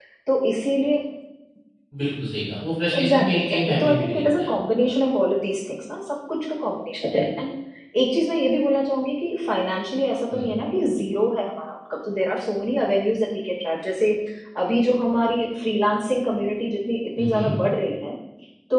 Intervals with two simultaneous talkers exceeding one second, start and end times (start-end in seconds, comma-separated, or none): 3.0-4.5